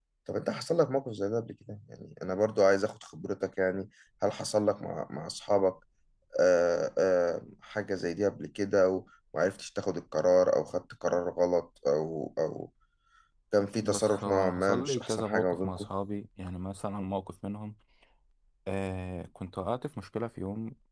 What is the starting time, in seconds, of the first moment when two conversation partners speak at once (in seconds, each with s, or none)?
13.8 s